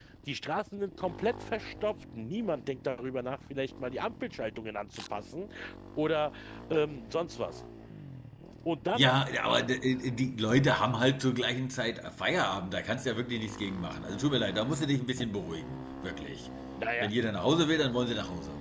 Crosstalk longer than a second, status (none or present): none